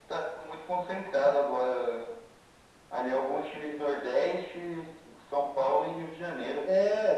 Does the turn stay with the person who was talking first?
No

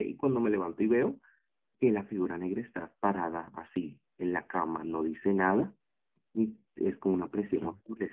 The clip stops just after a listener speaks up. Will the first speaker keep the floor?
Yes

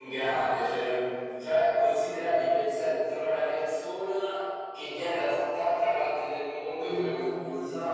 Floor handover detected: Yes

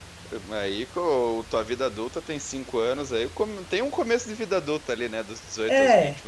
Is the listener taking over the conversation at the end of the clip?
Yes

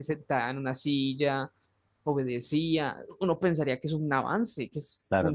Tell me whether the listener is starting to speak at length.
Yes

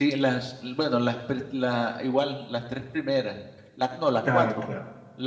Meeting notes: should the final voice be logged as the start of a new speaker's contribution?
No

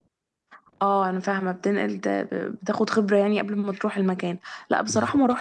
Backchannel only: Yes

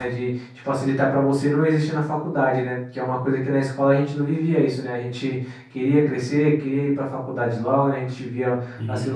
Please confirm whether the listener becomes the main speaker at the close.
No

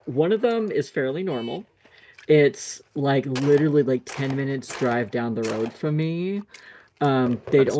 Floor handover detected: No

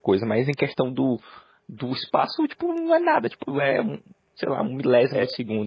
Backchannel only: No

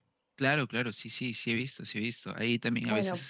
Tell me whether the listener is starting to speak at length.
No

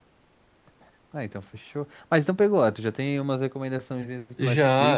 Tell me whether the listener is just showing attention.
No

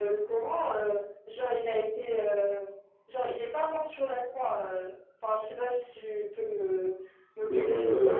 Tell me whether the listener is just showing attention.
No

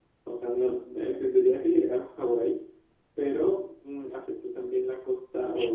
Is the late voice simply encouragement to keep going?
No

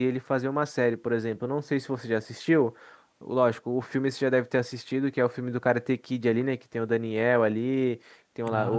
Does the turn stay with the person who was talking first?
Yes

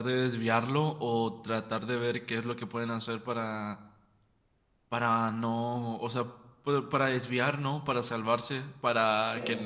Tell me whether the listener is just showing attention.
Yes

